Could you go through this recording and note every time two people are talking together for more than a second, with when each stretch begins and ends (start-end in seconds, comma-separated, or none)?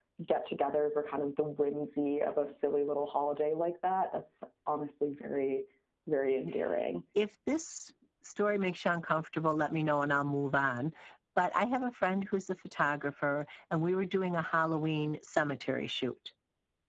none